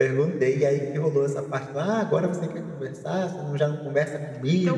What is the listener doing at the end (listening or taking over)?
taking over